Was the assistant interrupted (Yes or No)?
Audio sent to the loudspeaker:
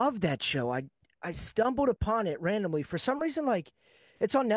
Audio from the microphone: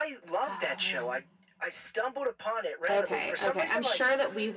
Yes